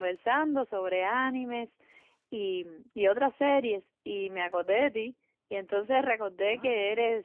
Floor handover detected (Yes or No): No